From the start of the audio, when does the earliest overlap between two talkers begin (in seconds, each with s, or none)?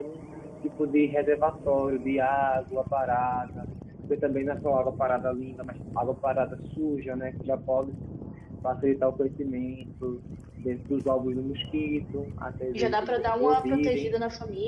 12.7 s